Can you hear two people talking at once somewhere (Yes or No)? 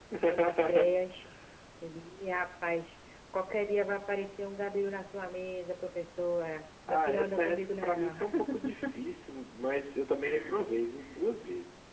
Yes